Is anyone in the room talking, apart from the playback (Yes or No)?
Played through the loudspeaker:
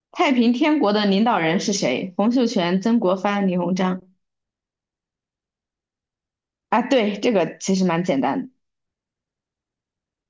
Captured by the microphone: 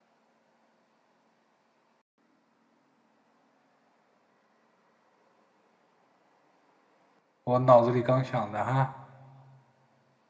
Yes